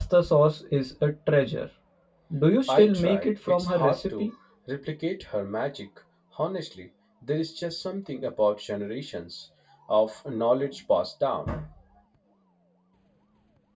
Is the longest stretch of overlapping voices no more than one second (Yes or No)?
No